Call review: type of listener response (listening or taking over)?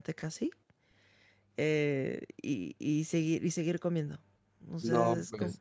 taking over